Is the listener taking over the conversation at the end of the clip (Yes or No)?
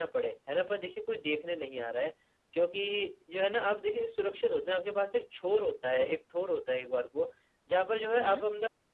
No